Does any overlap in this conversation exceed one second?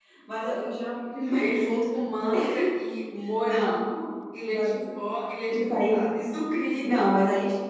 No

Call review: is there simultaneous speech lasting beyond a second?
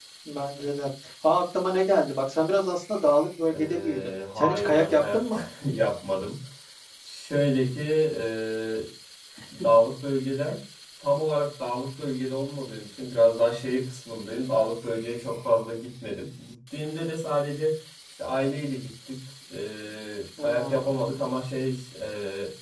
Yes, from 3.5 s

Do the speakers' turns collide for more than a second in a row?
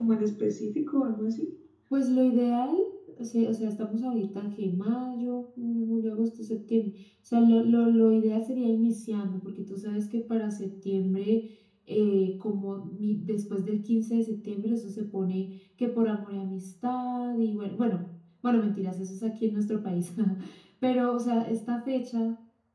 No

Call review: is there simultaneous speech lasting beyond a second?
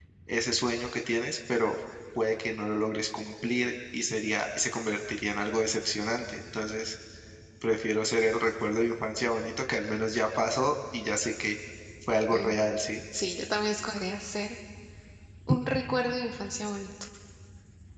No

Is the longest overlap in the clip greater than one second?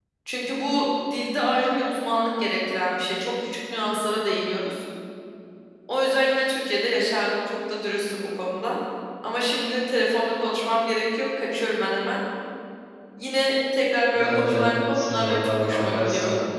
Yes, from 14.1 s

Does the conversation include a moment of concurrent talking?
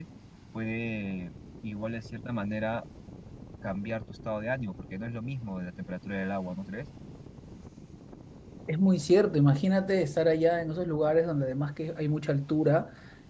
No

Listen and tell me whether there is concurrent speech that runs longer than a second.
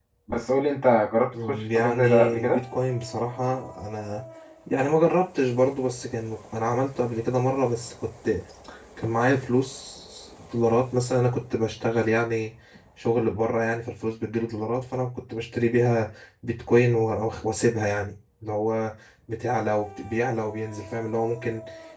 Yes, from 1.3 s

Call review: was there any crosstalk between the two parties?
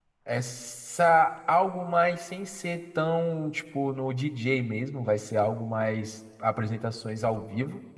No

